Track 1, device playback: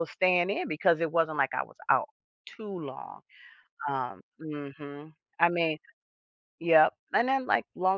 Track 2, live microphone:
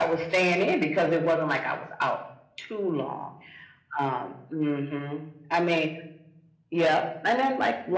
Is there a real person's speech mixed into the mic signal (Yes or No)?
No